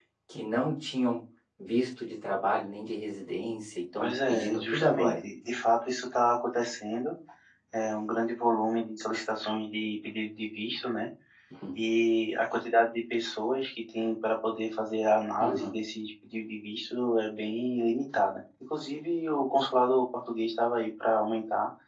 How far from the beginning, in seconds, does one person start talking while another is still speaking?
4.0 s

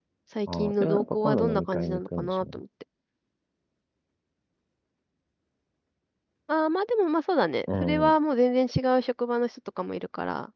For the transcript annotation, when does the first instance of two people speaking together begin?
0.5 s

